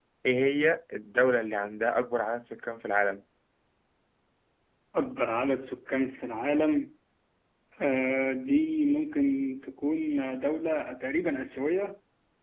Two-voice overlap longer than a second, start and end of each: none

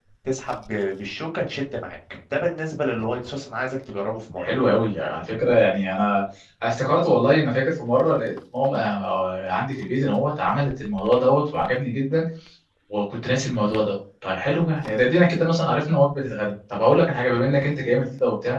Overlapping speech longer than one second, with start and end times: none

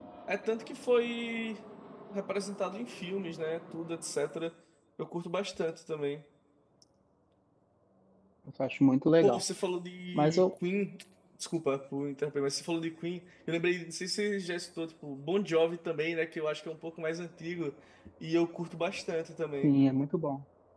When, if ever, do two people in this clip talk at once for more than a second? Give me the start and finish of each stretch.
none

